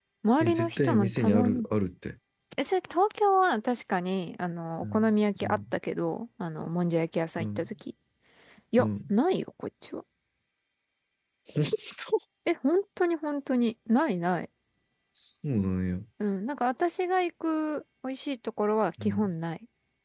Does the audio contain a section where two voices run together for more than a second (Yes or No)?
Yes